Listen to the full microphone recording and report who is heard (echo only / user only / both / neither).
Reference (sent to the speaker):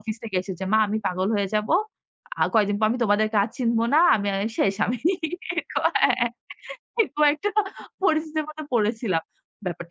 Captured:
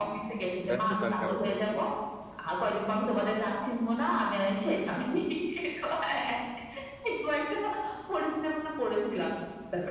both